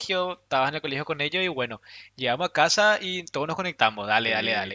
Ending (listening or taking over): listening